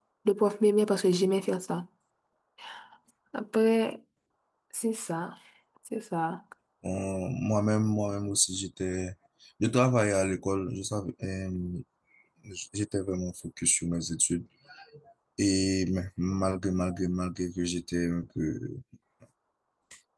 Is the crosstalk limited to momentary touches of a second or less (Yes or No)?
Yes